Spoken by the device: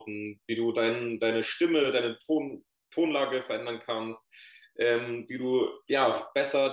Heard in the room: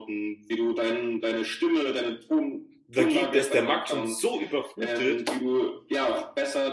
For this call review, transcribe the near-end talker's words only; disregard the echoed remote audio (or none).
da geht, da ist der Markt schon so überflutet,